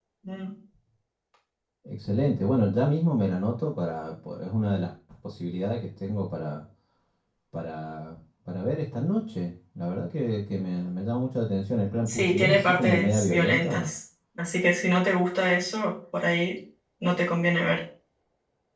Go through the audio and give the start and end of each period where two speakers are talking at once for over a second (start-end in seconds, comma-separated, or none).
12.1-13.9